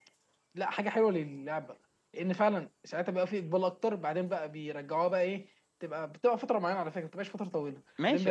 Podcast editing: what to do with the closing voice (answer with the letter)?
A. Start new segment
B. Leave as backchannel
A